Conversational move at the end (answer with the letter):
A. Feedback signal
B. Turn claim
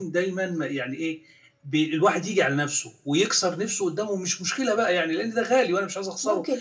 B